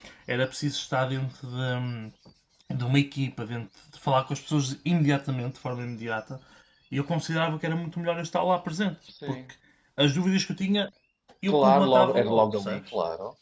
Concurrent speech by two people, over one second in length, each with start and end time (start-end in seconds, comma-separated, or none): 11.5-12.8